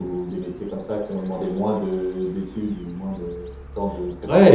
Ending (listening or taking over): taking over